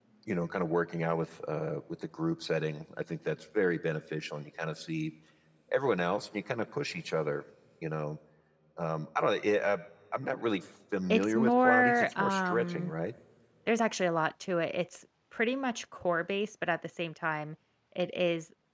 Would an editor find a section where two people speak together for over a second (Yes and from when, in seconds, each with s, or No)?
Yes, from 11.1 s